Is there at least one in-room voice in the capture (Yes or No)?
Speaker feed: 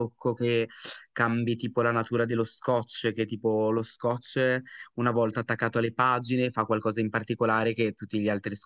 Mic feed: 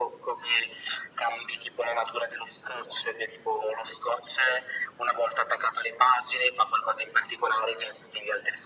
No